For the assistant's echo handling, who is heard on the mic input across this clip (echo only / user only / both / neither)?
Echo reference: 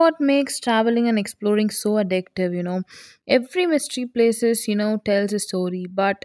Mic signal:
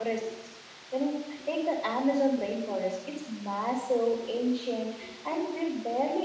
user only